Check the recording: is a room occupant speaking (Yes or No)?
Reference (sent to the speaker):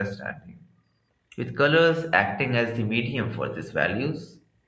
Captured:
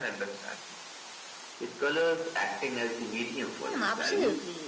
Yes